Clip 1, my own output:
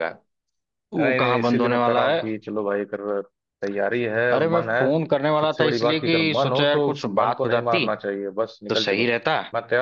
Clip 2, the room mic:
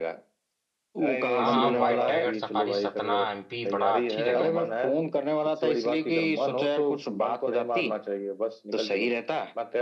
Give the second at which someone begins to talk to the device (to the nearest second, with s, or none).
1 s